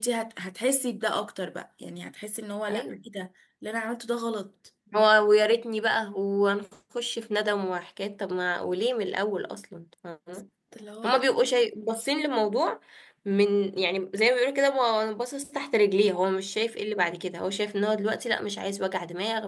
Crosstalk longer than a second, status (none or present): none